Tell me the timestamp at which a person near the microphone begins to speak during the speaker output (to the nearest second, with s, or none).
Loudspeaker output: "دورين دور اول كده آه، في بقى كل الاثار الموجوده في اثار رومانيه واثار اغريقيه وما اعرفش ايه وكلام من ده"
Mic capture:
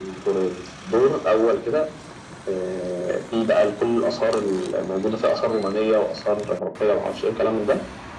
none